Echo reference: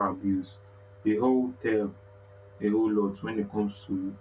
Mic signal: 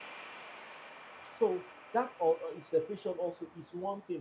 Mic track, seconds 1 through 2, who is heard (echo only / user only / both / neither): user only